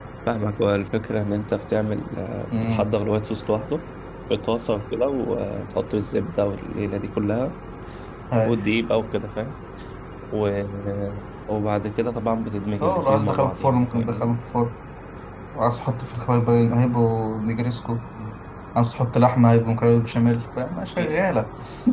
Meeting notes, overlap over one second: present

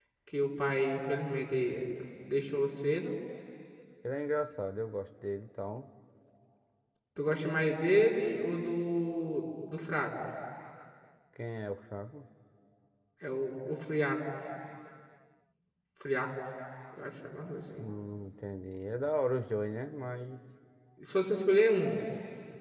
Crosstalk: none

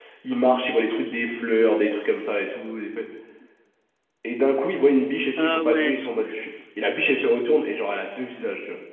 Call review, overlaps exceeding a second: present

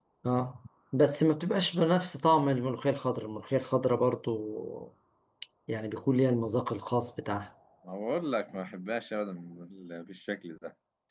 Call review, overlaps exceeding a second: none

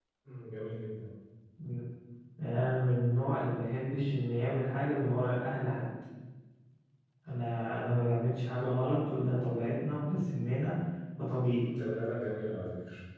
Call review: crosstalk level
none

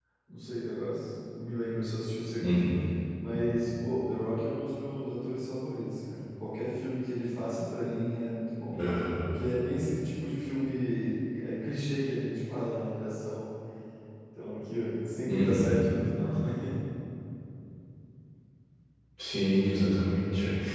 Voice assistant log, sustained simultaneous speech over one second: none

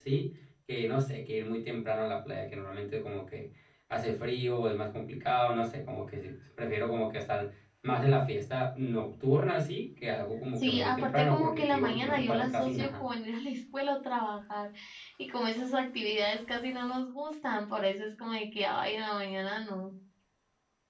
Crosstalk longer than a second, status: present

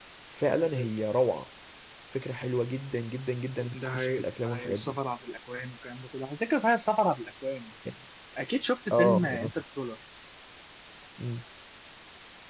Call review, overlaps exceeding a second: present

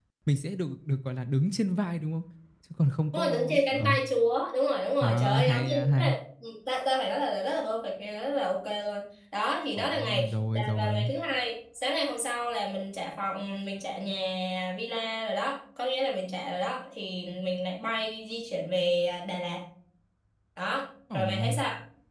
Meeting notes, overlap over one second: present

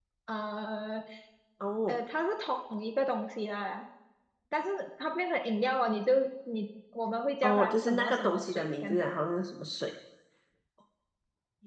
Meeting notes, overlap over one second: present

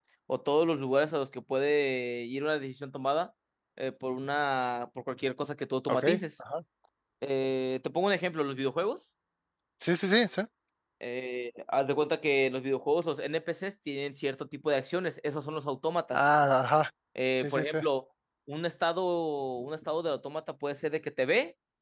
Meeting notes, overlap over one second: none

